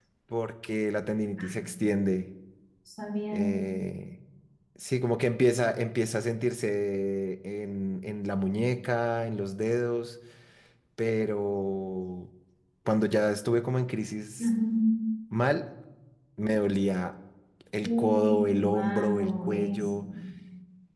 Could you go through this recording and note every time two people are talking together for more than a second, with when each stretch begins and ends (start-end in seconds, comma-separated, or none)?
17.8-19.9